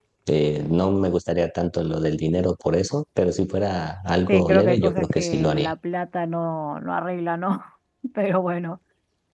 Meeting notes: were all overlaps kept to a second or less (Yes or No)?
No